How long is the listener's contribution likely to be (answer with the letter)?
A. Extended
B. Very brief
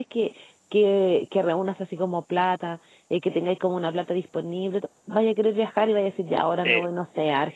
B